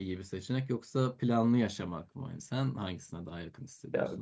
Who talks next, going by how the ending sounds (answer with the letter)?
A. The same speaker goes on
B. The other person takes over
B